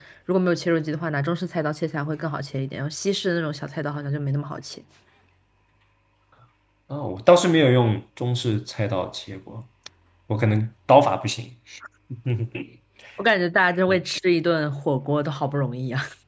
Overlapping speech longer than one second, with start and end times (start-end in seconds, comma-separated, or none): none